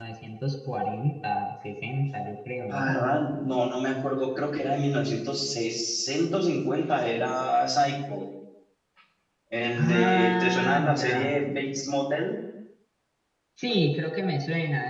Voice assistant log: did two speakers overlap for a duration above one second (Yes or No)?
Yes